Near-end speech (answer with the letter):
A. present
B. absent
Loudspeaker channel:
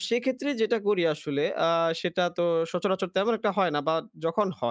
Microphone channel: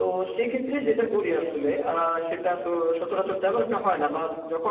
B